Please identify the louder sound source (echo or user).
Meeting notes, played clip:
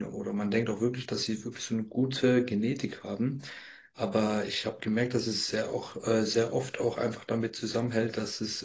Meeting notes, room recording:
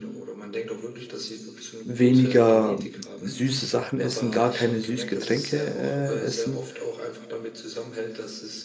user